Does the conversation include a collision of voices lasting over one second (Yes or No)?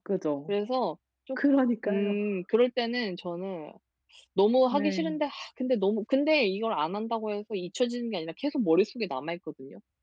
No